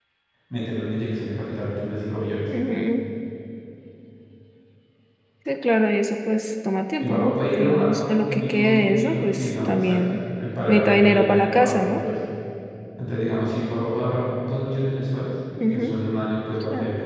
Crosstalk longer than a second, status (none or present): present